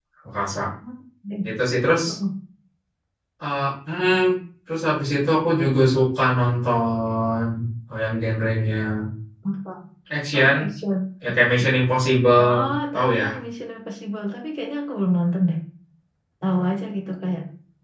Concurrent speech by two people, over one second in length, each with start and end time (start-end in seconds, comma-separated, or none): none